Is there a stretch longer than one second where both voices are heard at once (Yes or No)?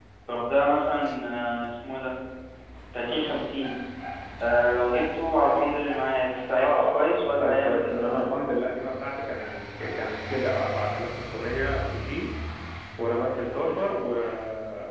Yes